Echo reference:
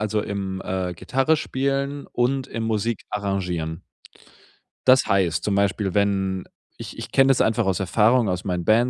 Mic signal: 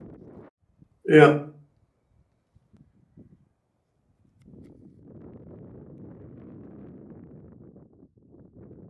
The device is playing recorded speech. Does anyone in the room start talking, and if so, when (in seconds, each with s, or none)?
1.0 s